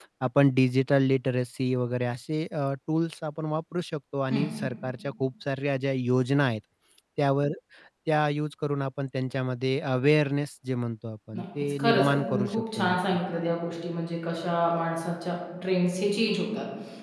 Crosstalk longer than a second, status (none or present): present